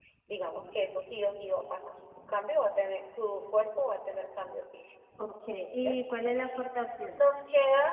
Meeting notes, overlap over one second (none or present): none